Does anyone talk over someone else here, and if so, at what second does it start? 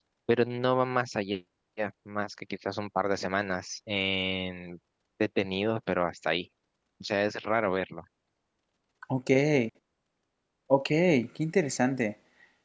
none

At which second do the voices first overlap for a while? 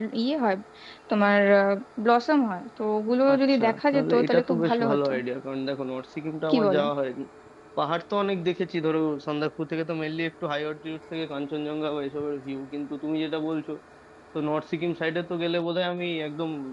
3.3 s

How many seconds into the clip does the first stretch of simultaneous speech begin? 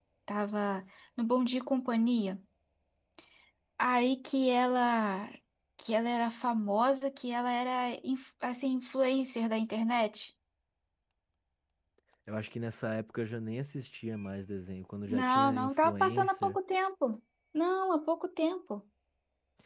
15.1 s

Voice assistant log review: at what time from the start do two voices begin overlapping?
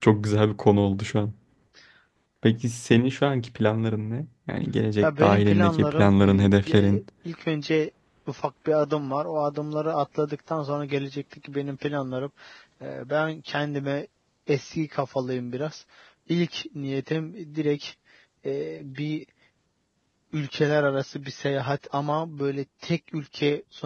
5.0 s

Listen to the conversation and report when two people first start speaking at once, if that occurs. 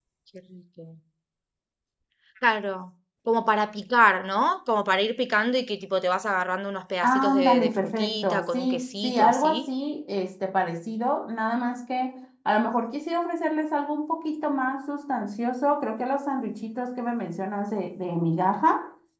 7.0 s

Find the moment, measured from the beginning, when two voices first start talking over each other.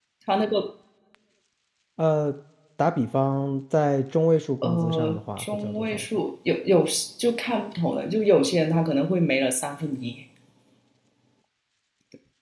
4.6 s

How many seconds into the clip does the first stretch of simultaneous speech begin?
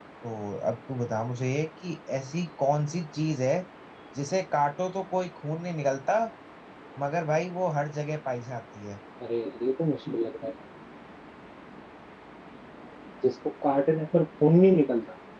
none

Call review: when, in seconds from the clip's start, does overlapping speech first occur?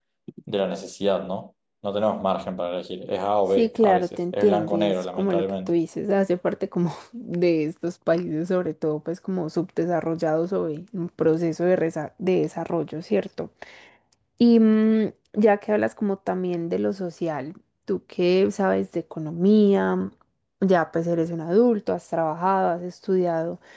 3.6 s

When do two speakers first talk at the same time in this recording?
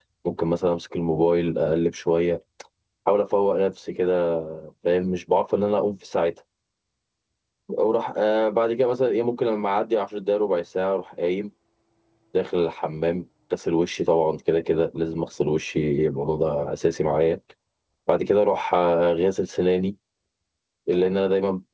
none

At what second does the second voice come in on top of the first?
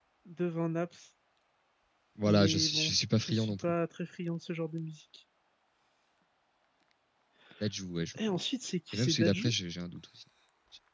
2.2 s

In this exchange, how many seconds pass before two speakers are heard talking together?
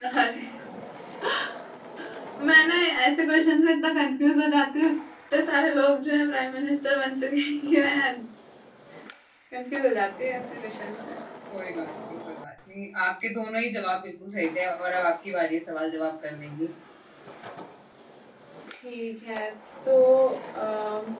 none

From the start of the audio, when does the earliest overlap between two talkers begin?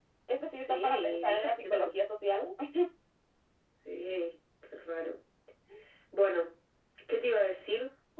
0.6 s

